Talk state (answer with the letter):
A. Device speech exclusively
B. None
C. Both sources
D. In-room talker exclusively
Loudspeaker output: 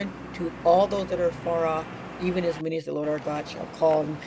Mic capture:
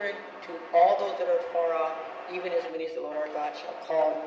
A